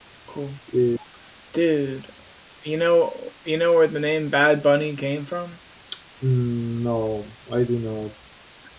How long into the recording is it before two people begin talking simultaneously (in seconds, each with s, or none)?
none